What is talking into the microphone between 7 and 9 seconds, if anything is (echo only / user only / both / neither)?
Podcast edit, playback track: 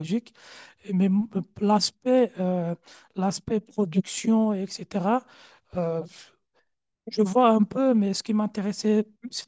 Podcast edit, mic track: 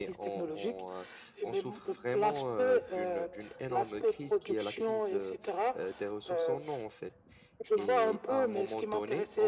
both